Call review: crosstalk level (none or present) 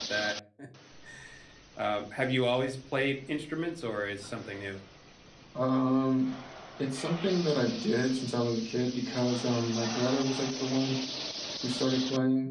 none